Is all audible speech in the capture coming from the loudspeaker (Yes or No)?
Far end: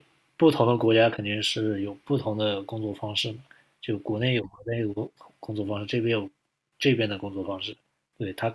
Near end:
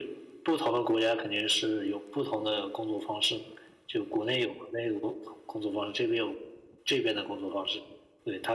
Yes